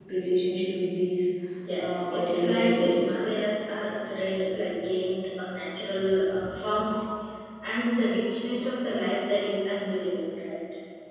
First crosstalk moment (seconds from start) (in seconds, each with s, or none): 1.8 s